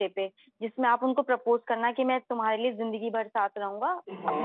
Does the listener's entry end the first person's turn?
Yes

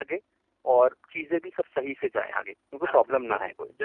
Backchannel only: No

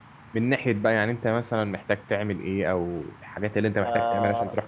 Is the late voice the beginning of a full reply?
Yes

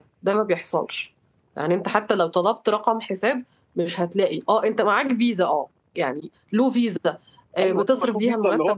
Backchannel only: No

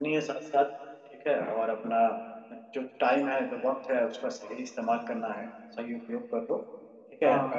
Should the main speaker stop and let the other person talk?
No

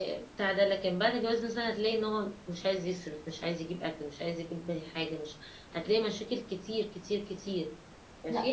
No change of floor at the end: No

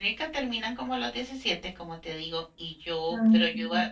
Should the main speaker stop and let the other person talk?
No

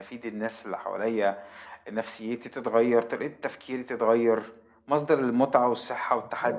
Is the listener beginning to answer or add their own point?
No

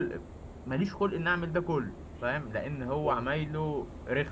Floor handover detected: No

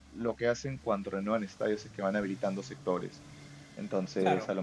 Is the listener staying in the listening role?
Yes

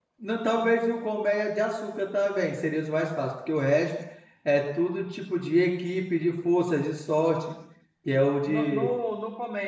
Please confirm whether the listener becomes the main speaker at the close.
Yes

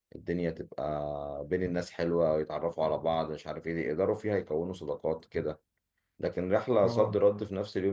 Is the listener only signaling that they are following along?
Yes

